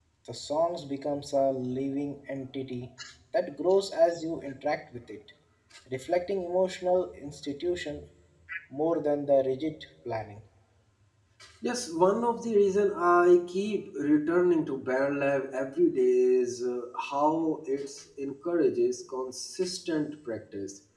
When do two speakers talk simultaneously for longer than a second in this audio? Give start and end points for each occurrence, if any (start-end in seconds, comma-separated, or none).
none